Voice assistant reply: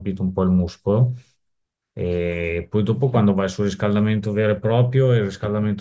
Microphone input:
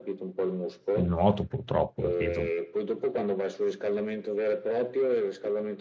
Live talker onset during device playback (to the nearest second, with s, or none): 1 s